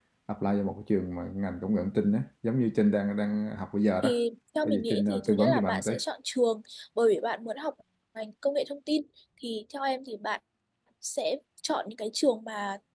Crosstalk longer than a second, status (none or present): present